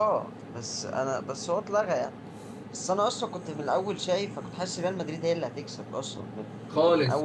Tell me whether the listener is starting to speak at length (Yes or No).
No